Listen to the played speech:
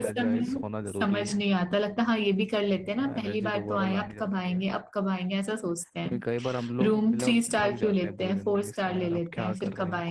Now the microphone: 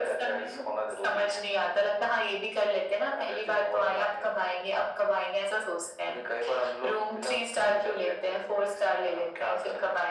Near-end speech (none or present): none